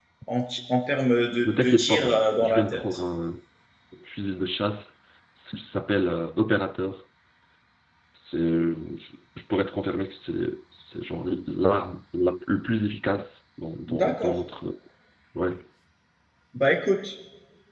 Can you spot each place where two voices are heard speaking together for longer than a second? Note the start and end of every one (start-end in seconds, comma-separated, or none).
1.4-2.8